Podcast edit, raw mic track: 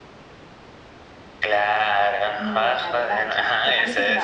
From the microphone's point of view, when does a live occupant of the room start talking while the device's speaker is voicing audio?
2.4 s

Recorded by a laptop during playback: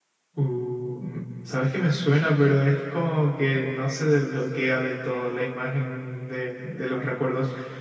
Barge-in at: 0.3 s

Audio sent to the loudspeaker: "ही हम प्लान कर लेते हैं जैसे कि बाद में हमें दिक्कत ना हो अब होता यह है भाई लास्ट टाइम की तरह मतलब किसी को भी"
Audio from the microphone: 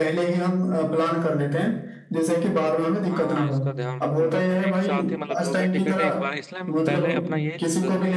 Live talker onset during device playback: 3.1 s

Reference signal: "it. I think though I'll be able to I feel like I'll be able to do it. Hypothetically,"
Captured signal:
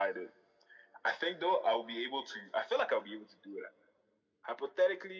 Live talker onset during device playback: none

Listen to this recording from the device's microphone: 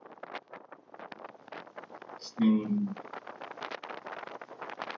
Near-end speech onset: 2.2 s

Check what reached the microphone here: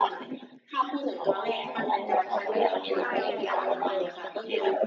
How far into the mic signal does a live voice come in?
2.9 s

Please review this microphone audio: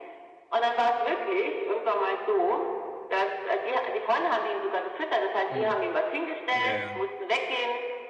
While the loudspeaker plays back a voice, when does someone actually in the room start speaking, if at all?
5.5 s

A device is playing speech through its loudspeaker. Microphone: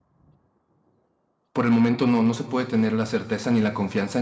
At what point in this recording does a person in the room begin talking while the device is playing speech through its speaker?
1.5 s

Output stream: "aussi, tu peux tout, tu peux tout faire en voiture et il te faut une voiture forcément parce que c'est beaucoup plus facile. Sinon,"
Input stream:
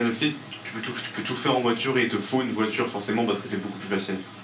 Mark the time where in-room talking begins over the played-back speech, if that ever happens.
none

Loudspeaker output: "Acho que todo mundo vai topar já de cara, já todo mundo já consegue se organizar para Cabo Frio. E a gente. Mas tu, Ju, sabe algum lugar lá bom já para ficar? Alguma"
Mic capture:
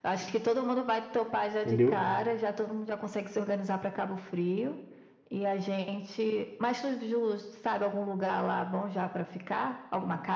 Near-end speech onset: 1.6 s

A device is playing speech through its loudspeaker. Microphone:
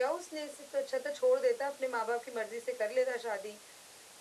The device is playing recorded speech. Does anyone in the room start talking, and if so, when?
none

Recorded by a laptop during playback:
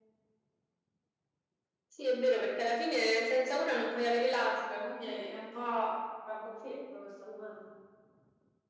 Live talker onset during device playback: none

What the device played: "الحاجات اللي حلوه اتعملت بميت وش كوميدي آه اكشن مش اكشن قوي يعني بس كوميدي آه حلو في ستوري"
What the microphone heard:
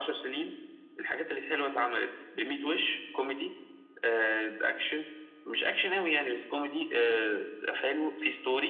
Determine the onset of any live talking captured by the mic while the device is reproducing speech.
none

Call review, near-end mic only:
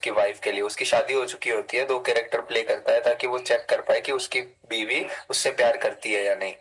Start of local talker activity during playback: none

